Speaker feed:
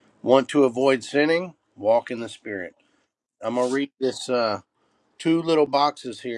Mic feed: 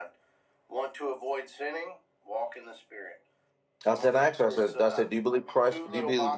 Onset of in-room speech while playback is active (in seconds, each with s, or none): 3.9 s